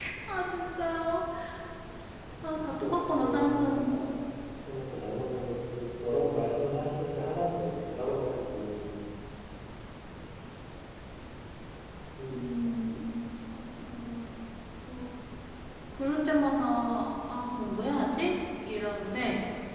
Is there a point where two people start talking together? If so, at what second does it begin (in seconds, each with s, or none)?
2.5 s